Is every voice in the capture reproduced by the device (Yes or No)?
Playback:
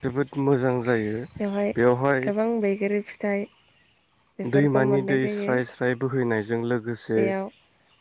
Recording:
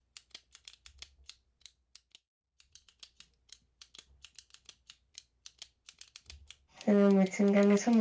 No